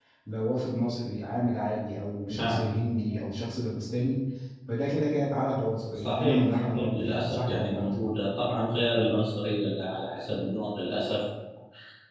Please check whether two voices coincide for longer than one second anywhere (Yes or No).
Yes